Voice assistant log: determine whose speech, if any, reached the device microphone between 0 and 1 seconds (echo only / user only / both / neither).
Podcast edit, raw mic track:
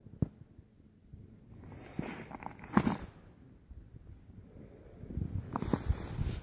neither